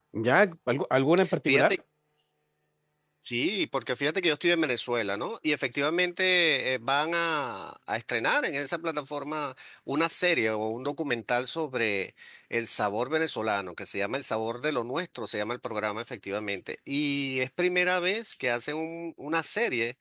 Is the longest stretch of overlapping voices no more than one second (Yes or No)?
Yes